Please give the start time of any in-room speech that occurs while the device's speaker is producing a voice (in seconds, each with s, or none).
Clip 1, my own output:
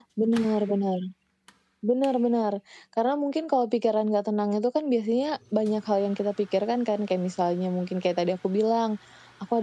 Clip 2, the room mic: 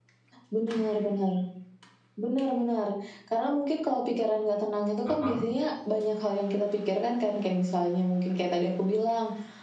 5.0 s